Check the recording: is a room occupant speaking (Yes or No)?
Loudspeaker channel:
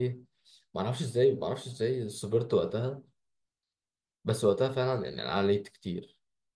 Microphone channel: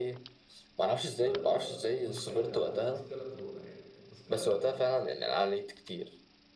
Yes